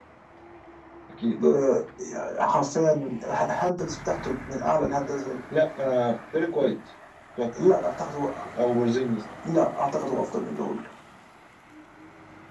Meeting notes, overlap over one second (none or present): none